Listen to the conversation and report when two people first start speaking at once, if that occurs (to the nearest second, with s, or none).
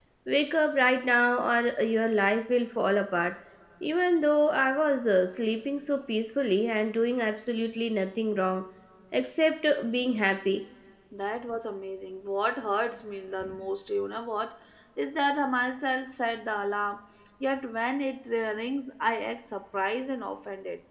none